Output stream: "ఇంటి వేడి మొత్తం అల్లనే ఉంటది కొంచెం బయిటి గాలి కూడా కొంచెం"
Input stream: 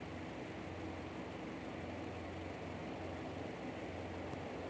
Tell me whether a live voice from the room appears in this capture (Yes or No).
No